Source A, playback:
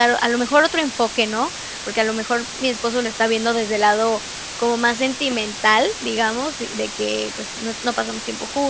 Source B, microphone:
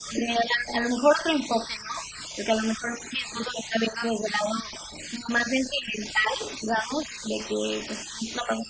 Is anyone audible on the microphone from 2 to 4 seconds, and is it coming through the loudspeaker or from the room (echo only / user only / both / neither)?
echo only